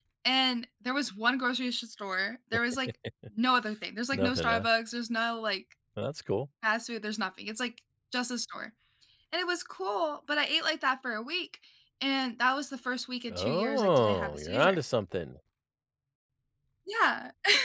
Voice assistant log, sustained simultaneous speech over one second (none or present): present